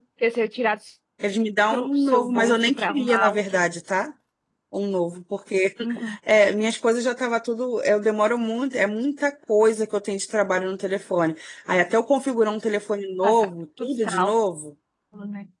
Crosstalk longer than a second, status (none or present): present